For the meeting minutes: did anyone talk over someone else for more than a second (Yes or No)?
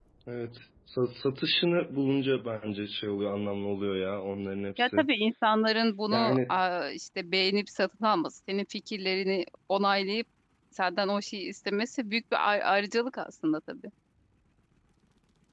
No